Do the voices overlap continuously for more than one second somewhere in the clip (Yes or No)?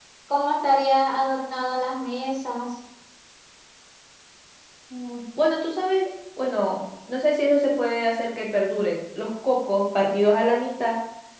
No